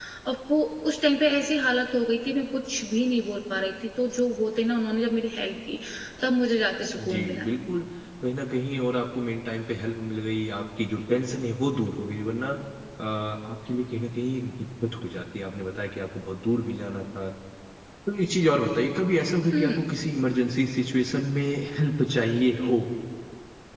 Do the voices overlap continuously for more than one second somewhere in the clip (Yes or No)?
No